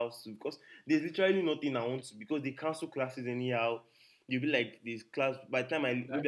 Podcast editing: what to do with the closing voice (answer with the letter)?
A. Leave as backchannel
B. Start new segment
A